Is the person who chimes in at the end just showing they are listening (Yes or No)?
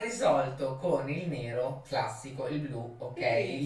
Yes